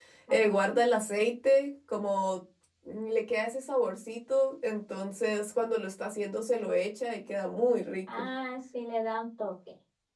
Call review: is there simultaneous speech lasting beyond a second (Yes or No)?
No